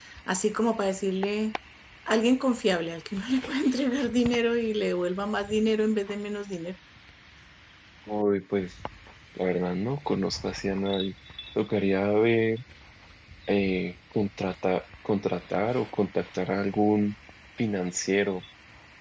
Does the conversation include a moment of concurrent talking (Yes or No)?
No